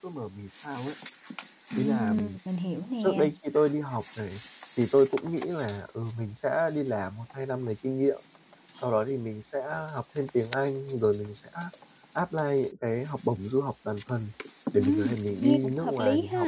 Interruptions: present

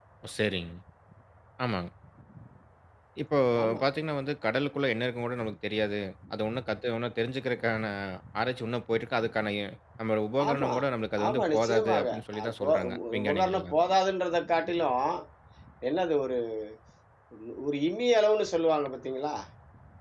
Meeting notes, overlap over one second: present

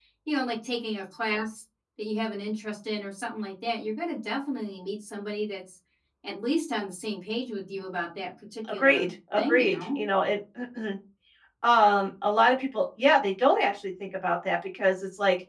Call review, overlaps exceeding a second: present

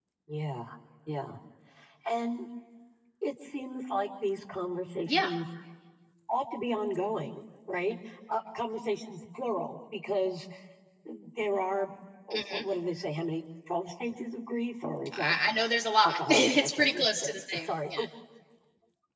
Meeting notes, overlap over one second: present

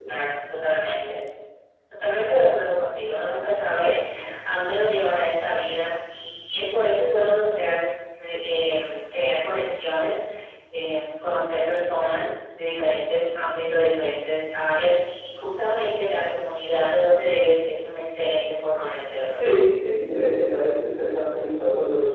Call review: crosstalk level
none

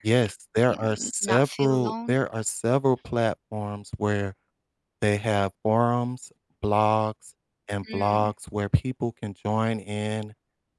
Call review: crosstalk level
present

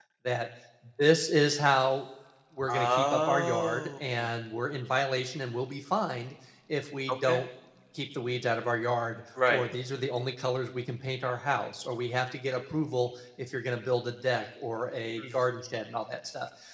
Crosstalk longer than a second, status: present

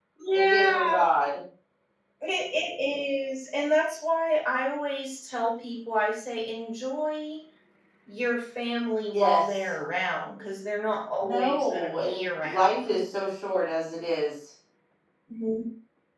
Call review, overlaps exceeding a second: present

